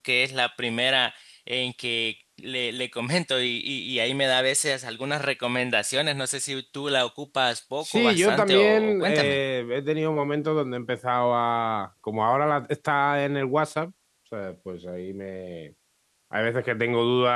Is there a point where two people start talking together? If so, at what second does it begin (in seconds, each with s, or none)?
7.8 s